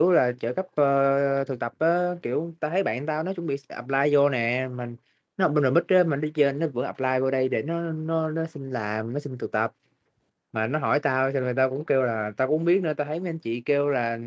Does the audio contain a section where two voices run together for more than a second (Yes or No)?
No